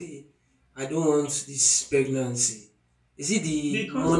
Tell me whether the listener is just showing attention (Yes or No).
Yes